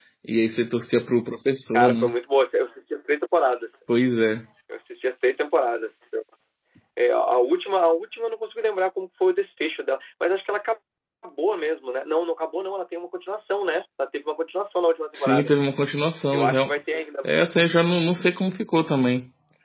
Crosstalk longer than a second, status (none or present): none